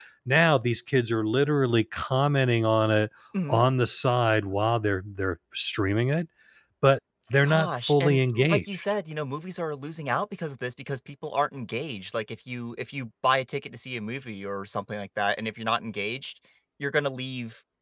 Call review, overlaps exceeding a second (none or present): present